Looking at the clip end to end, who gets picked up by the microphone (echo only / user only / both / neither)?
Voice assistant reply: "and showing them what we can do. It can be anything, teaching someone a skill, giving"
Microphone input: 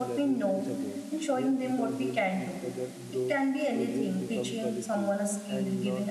both